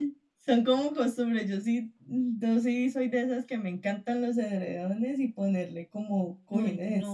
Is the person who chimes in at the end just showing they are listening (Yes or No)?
No